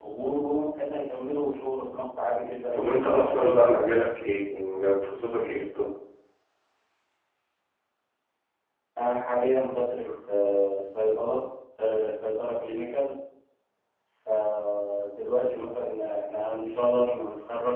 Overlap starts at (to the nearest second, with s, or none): 3 s